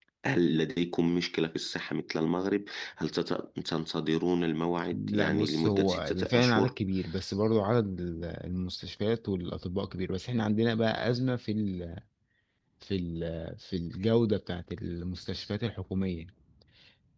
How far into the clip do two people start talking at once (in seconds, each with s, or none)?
4.9 s